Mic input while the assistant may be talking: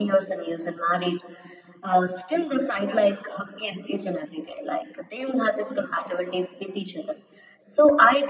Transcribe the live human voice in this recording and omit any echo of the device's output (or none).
none